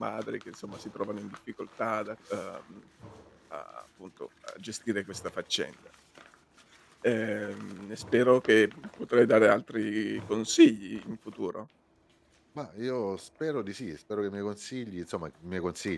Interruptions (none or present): none